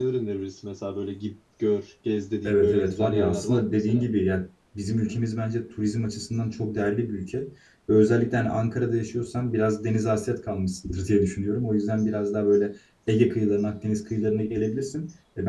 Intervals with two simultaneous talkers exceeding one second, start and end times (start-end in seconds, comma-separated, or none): 2.4-4.0